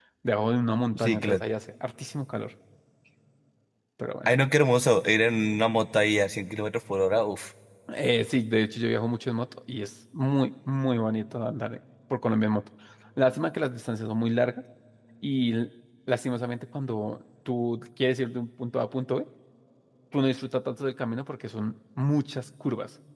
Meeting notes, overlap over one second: none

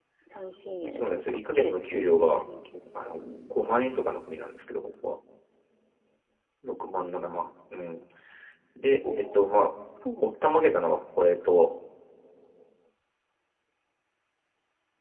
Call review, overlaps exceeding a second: present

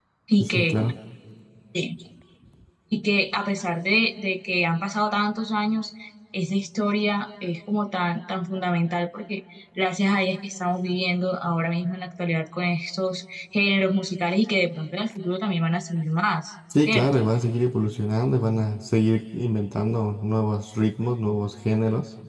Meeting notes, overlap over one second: none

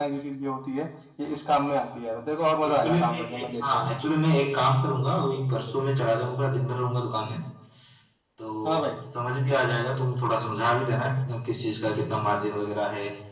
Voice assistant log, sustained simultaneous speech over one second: present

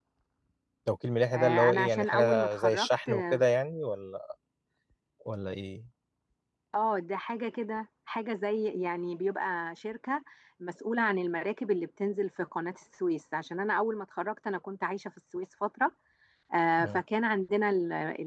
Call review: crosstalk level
present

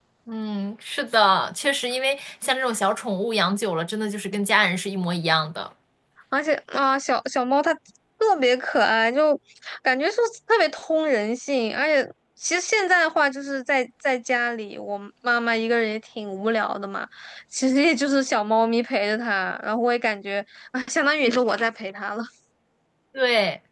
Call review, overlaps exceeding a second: none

